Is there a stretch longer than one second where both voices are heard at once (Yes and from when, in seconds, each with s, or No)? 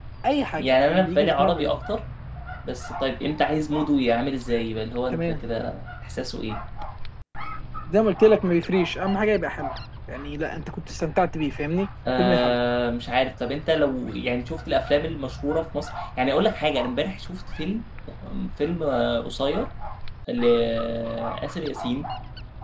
Yes, from 0.6 s